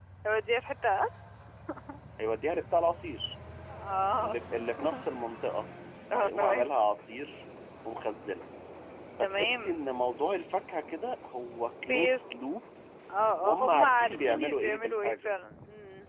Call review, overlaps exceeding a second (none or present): present